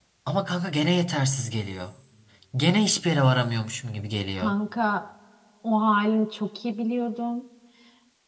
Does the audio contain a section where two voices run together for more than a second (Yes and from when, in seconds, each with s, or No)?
No